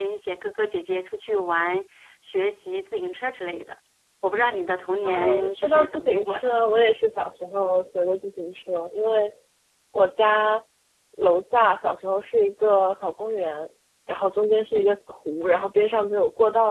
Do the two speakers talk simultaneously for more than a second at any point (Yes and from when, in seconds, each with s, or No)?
Yes, from 5.0 s